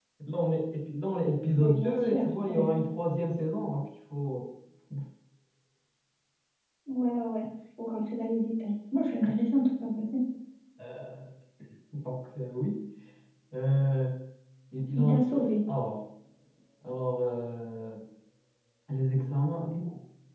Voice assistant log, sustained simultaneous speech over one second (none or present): present